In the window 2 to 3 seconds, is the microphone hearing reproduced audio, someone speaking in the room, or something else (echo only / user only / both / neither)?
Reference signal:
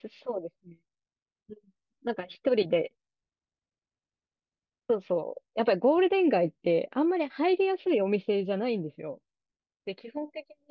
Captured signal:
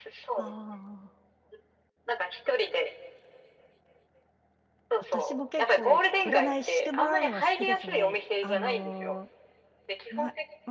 echo only